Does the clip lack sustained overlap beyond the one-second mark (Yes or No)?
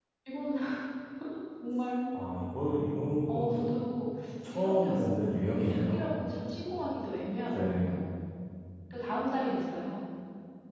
No